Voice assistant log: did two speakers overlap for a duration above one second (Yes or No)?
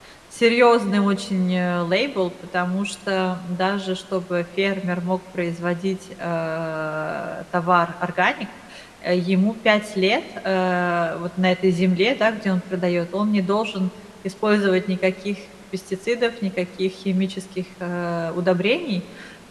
No